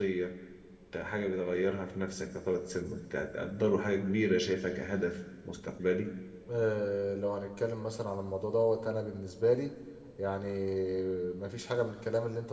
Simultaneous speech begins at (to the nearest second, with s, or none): none